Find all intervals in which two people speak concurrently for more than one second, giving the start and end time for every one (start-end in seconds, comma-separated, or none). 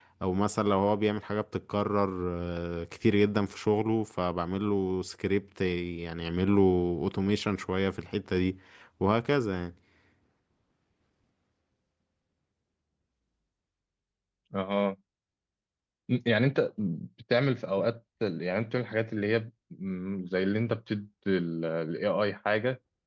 none